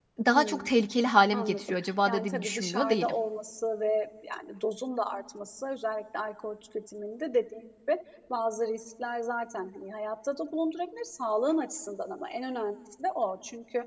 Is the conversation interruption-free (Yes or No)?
No